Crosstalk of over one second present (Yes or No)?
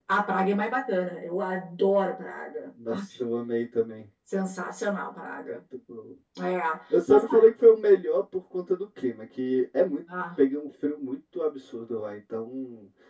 No